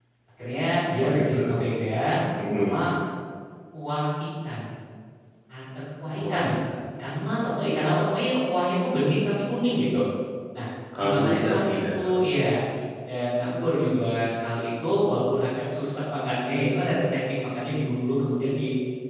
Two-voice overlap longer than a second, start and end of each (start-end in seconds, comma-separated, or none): 11.0-12.2